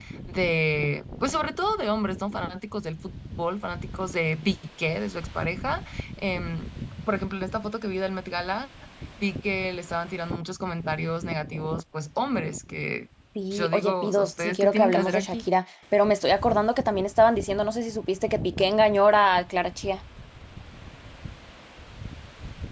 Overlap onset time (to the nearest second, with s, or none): 14 s